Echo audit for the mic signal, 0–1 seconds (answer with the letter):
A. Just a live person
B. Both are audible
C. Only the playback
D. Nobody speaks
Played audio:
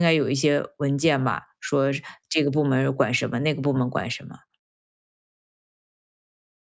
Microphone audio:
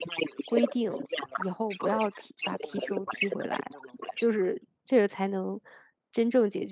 B